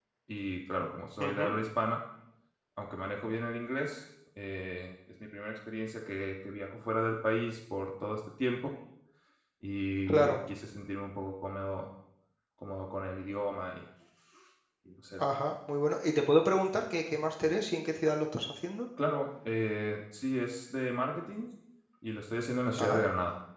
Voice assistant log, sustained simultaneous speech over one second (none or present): none